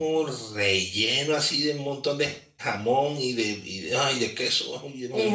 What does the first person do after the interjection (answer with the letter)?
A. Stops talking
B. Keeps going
A